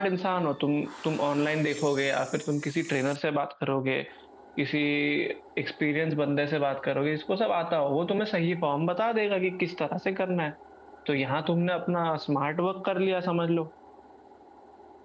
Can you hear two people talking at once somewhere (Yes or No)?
No